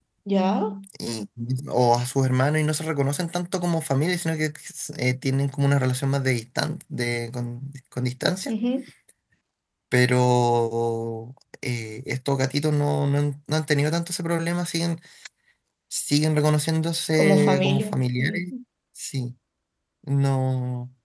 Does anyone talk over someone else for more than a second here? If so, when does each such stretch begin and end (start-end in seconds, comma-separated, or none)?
17.2-18.5